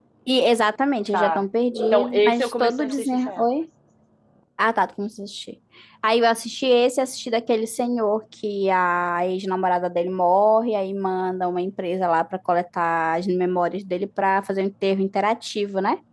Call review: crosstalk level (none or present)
present